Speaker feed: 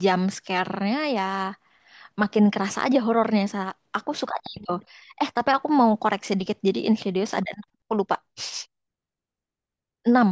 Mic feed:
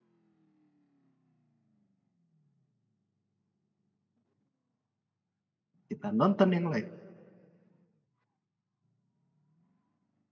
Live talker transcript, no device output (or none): kita nonton yang lain